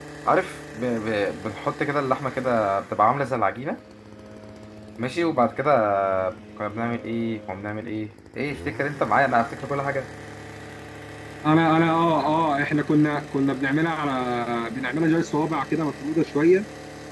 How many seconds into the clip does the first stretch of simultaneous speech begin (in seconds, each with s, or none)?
none